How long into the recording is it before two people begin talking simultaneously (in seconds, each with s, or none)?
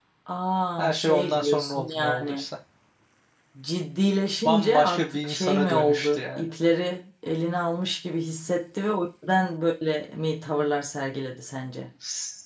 0.8 s